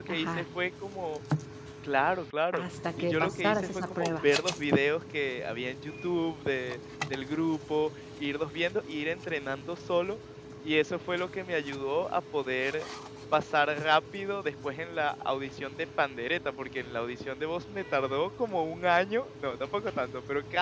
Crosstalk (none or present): present